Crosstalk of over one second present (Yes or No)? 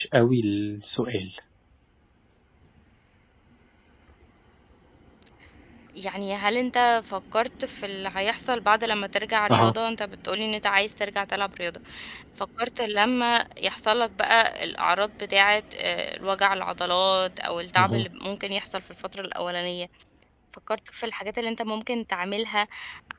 No